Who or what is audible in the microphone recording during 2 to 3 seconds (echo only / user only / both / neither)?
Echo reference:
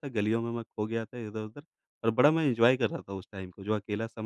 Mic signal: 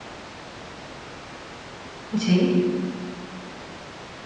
user only